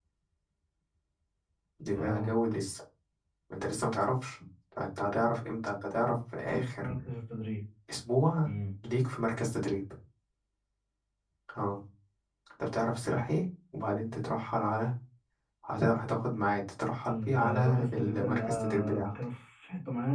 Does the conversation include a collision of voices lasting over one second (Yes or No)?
Yes